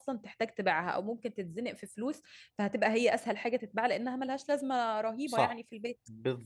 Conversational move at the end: taking over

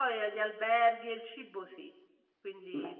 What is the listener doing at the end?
listening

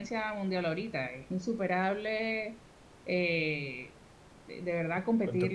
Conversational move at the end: listening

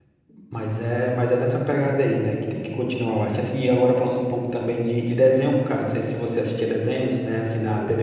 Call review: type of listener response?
listening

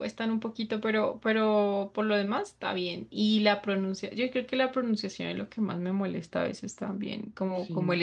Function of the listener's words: listening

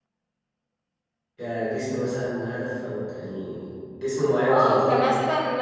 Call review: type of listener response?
taking over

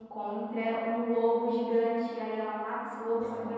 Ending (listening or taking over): listening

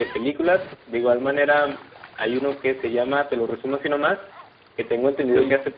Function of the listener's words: listening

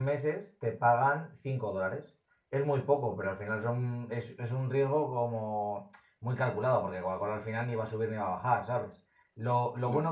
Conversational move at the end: listening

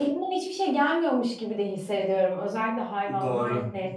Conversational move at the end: taking over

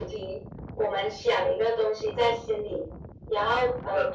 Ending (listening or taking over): listening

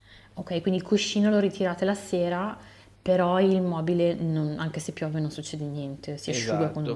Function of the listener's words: taking over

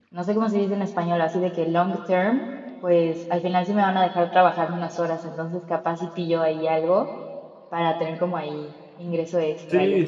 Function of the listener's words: taking over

